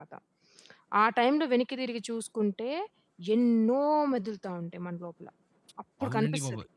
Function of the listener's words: taking over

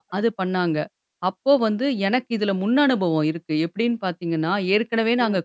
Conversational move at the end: listening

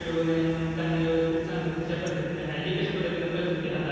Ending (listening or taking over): taking over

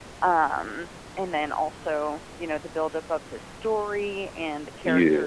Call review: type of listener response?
listening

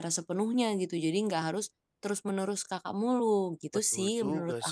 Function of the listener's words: taking over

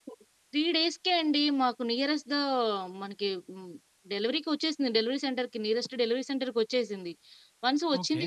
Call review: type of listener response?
listening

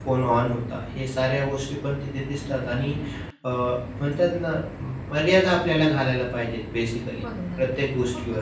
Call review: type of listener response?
taking over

